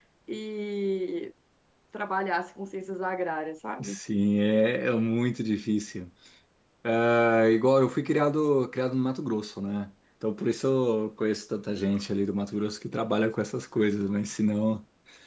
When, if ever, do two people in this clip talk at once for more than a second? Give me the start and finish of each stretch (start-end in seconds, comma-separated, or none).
none